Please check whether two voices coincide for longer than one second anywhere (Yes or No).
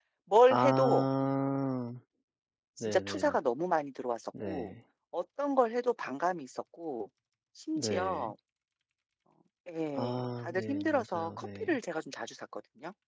Yes